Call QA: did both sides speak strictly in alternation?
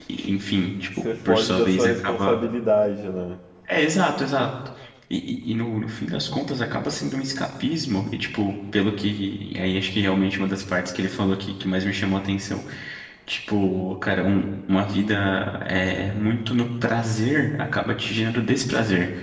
No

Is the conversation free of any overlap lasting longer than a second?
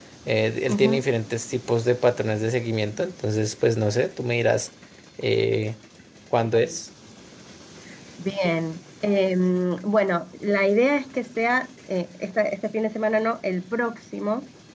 Yes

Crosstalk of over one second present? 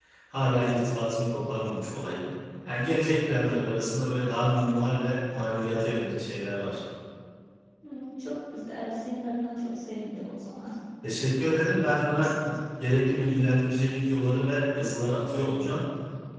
No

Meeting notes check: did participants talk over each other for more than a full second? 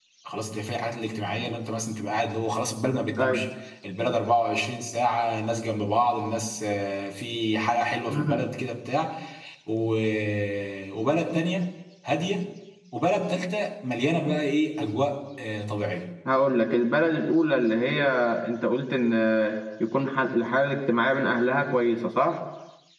No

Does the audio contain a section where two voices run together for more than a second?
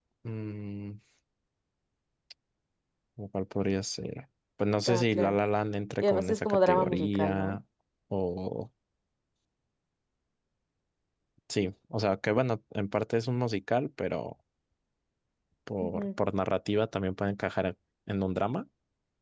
Yes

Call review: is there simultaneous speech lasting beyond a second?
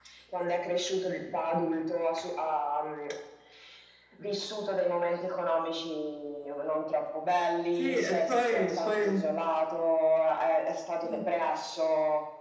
Yes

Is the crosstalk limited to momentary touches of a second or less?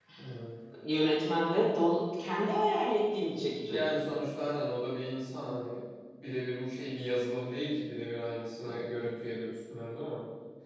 Yes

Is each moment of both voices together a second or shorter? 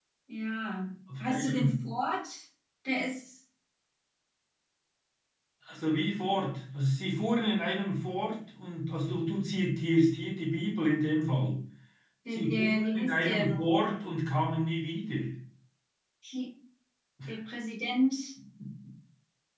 No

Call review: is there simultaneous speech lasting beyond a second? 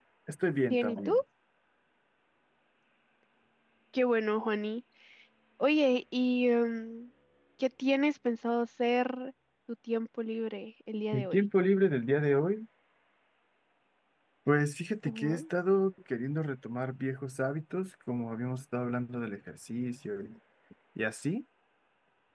No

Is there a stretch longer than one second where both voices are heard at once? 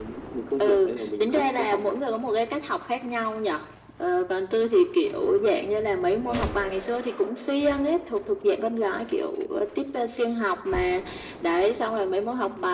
Yes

